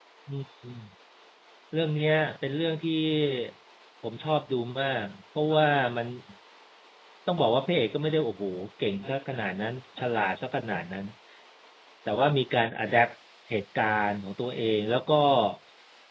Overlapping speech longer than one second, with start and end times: none

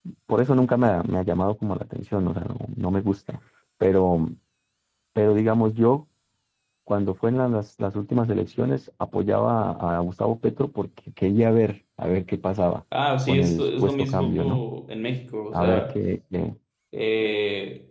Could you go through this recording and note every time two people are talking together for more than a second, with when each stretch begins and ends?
13.3-14.6

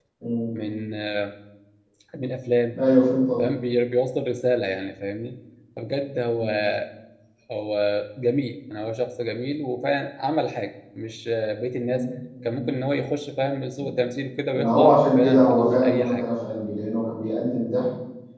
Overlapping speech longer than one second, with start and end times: 14.5-16.2

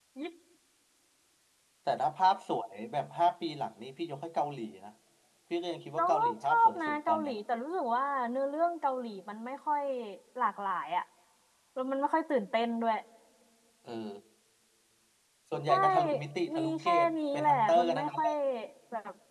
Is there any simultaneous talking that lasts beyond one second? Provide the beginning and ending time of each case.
6.0-7.3, 16.6-18.2

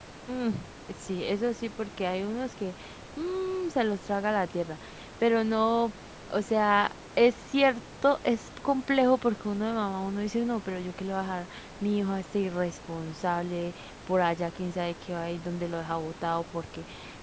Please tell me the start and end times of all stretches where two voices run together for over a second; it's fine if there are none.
none

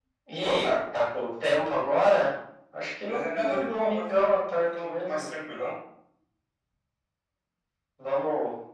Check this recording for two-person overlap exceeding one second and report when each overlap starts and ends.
3.1-5.3

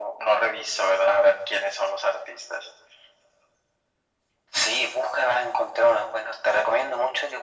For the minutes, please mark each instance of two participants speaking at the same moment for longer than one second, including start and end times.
none

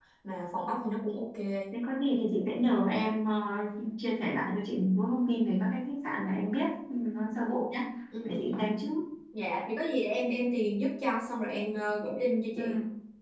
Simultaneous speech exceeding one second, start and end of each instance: none

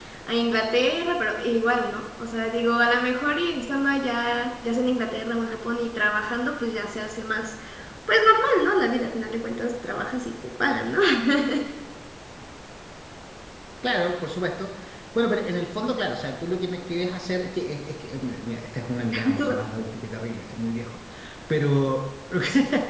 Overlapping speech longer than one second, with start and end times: none

